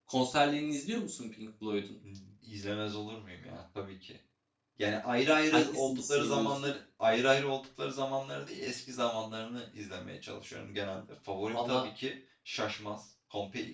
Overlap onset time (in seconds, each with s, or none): 5.5 s